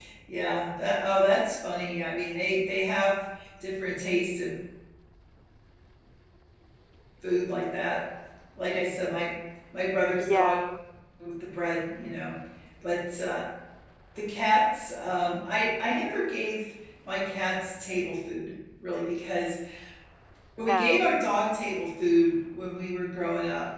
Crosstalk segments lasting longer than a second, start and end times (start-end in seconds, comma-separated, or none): none